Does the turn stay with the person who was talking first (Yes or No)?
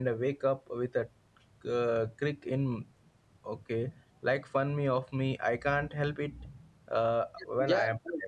No